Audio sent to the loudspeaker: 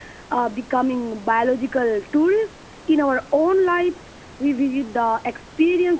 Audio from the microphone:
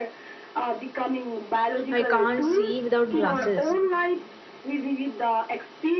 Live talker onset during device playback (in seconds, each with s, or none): 1.9 s